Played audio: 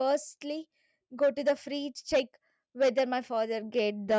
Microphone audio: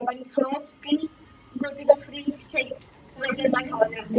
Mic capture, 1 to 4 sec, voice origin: both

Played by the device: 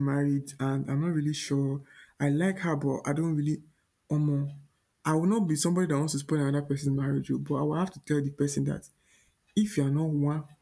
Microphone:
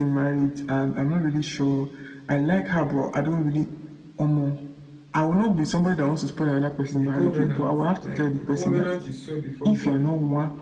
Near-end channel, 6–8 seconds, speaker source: both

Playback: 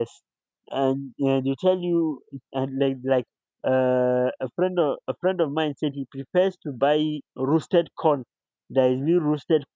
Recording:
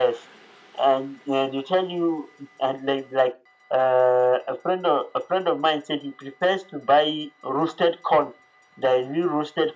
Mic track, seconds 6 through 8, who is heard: echo only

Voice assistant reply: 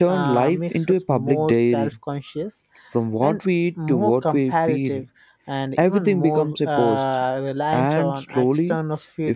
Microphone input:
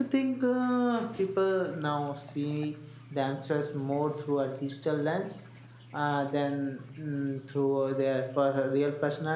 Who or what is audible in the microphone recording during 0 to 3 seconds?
user only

